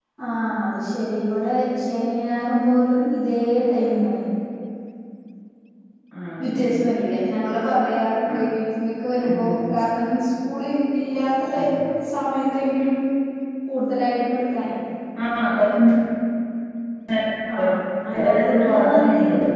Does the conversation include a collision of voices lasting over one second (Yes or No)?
Yes